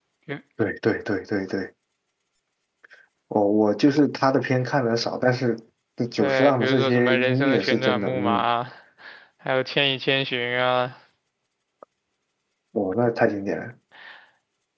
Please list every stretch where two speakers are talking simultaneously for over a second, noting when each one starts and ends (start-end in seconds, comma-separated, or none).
6.2-8.4